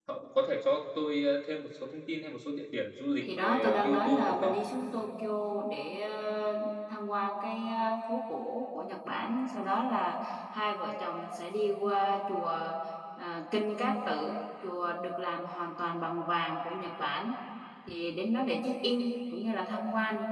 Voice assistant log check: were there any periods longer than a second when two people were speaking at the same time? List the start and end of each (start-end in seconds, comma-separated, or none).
3.2-4.5